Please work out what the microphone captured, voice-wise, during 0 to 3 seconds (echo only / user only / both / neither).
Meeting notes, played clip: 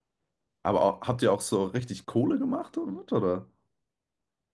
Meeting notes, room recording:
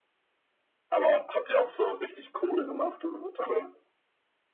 echo only